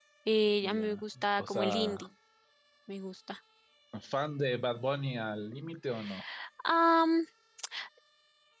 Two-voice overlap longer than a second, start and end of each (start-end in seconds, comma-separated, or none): 0.6-2.1